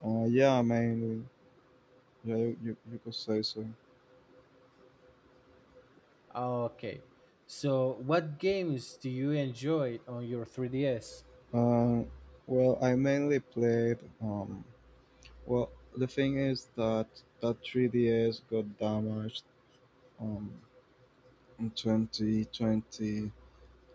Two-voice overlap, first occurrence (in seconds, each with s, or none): none